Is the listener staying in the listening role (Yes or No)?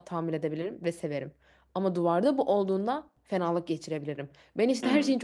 Yes